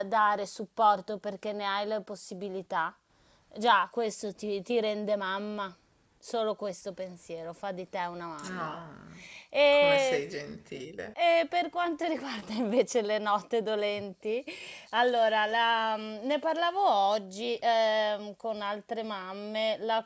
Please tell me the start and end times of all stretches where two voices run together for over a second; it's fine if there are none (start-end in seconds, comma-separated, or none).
none